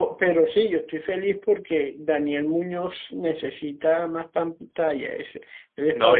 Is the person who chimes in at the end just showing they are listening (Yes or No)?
No